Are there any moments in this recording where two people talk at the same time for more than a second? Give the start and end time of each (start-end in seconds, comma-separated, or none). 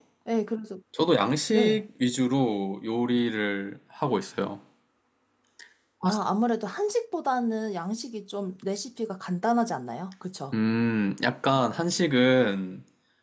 none